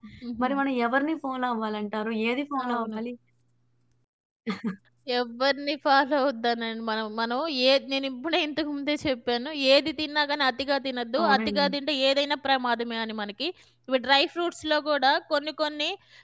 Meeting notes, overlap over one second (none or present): none